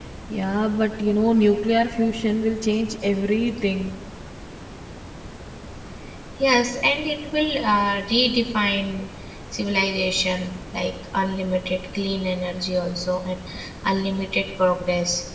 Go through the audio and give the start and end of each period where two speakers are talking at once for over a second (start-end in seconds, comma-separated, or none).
none